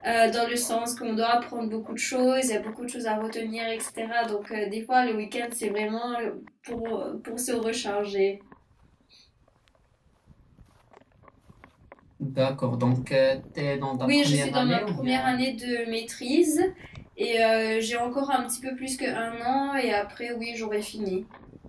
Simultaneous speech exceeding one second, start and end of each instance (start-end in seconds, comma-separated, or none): 14.0-15.4